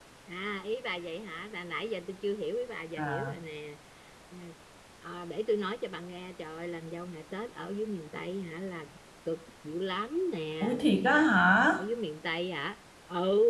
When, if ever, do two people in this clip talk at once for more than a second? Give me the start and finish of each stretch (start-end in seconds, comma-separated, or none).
none